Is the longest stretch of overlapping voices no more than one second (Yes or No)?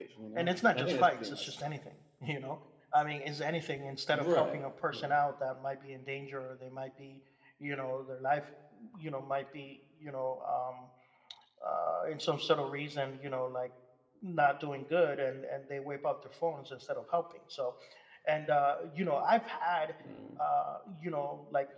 No